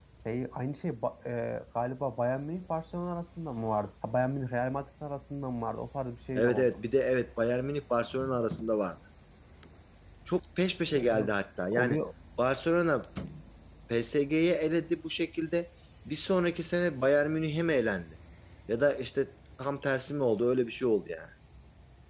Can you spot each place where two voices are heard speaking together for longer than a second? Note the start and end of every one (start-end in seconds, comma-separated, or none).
none